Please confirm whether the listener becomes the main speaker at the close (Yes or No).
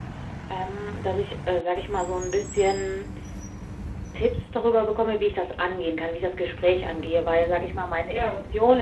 No